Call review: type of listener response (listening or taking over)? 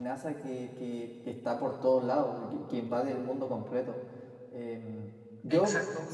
taking over